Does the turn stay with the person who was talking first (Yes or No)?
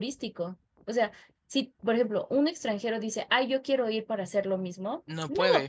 Yes